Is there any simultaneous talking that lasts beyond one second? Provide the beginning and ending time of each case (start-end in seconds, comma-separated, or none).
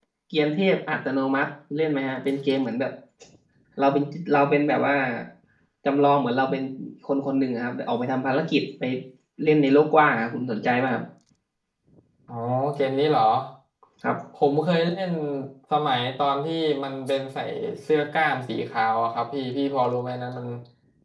none